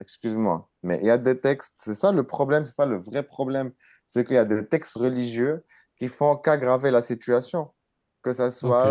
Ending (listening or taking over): taking over